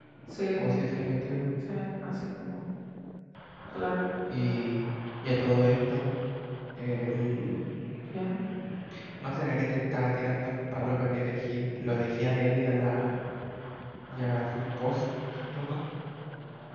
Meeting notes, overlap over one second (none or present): none